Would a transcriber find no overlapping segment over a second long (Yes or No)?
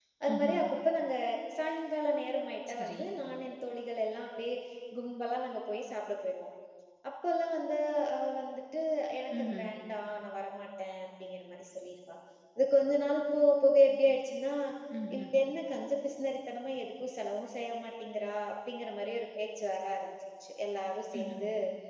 Yes